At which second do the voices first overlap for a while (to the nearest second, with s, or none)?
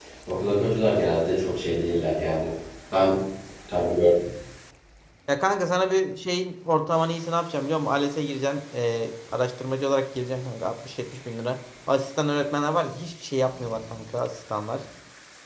none